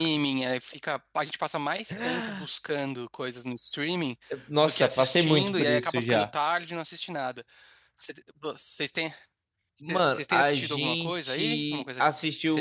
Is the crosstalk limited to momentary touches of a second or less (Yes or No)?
No